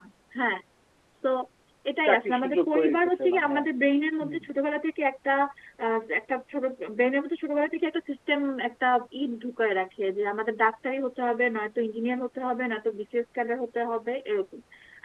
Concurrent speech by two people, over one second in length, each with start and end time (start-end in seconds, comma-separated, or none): 2.1-3.7